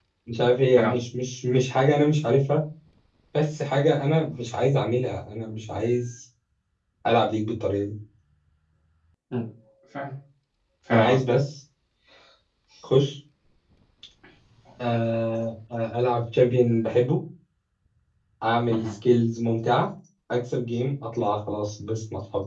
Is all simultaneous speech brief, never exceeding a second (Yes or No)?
Yes